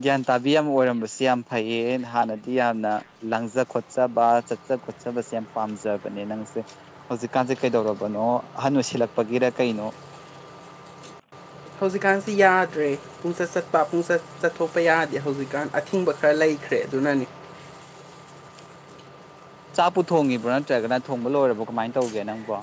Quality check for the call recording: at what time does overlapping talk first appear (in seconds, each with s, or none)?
none